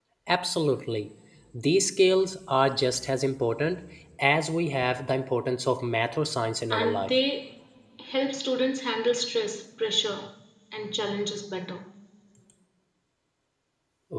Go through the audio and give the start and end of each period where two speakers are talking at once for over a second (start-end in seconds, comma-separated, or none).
none